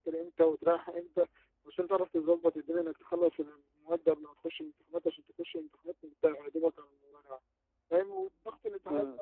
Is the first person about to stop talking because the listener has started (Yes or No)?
No